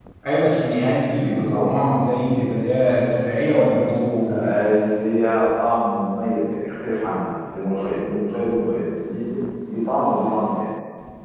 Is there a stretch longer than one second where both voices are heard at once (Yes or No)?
No